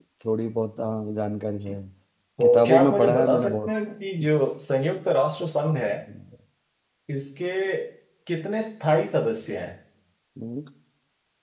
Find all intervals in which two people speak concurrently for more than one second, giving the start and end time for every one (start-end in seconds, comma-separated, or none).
2.4-3.7